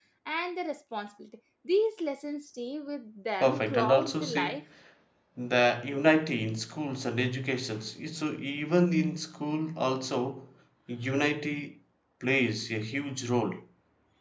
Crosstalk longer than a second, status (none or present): present